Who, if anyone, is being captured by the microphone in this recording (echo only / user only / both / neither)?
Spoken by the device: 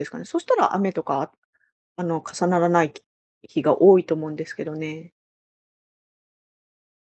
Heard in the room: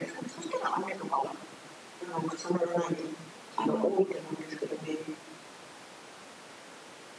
both